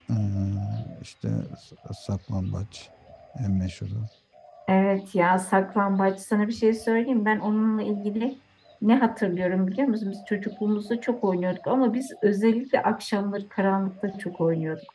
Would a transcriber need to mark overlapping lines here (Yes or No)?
No